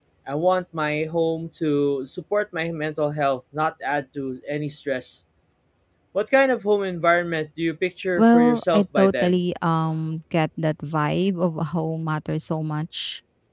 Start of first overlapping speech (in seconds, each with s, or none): 8.2 s